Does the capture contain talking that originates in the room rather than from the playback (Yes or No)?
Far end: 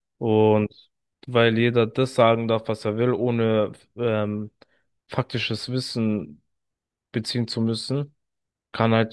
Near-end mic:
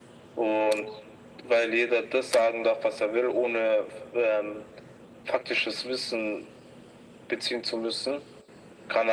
No